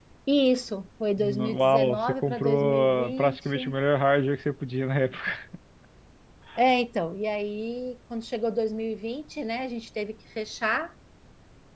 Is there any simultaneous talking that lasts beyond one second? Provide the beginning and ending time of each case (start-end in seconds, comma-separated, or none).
1.2-3.7